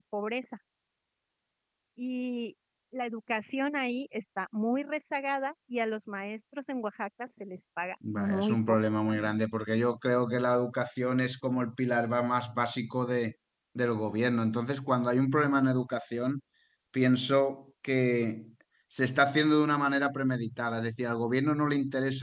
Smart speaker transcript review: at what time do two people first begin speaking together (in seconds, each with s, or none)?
8.0 s